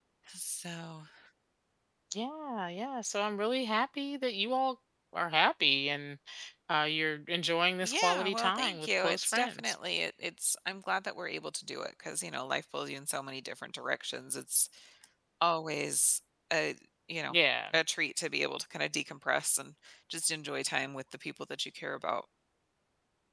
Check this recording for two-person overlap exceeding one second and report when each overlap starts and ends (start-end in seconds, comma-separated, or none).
7.8-9.8